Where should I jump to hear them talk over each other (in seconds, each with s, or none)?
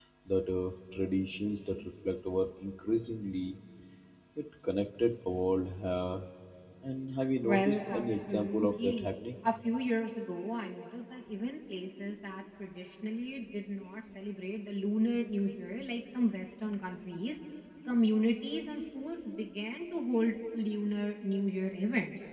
7.4 s